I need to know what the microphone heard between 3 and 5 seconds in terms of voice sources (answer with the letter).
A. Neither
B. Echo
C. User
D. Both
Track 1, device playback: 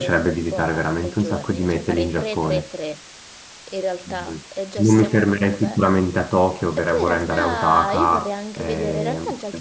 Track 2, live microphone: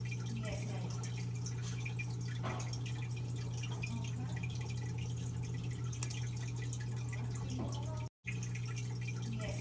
A